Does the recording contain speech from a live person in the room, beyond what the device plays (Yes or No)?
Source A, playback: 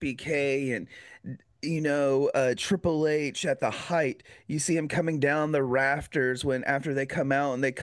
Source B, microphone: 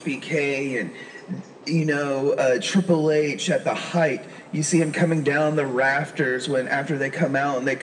No